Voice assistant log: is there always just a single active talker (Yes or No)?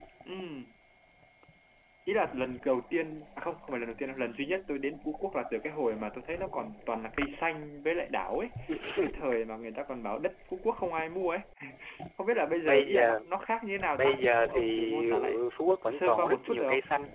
No